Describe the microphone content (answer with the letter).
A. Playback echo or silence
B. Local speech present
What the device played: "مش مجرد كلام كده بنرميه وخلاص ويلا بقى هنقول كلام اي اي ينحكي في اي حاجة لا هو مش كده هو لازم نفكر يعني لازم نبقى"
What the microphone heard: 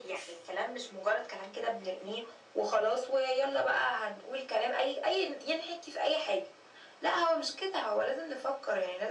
A